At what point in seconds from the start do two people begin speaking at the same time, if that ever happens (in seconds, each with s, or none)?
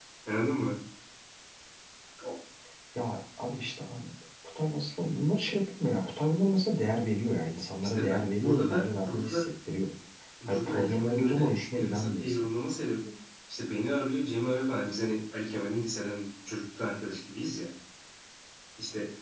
7.8 s